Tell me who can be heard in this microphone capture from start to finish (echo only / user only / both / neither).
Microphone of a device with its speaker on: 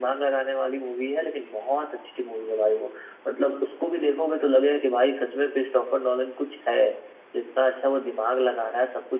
echo only